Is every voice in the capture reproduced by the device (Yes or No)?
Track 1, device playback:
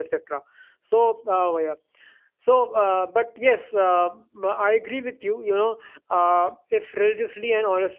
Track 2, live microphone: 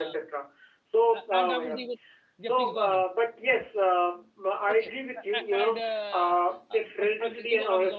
No